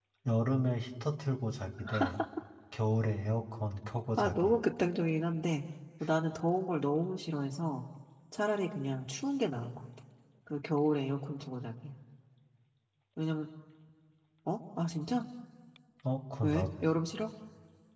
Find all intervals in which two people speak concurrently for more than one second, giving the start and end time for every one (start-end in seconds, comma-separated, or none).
none